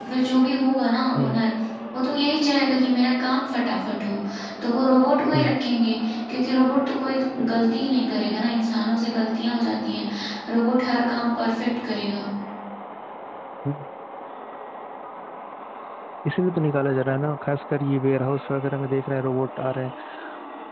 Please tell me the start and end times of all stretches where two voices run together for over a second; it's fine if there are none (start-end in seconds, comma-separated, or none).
none